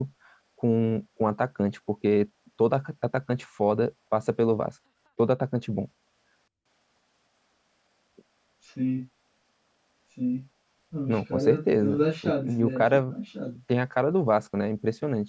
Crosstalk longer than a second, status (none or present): present